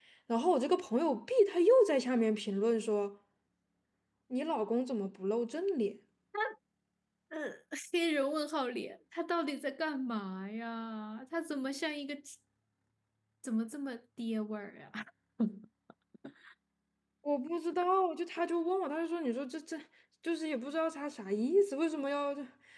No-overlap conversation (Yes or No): Yes